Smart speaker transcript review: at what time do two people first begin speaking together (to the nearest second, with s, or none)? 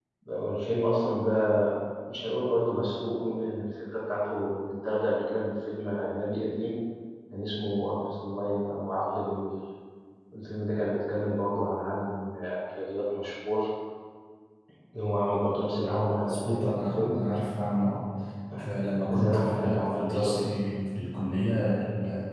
16 s